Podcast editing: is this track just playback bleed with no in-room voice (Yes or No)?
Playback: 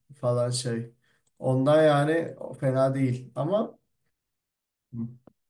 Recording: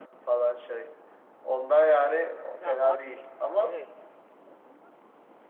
No